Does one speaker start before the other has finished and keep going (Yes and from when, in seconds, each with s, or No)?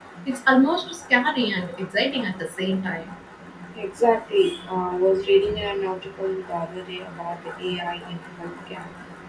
No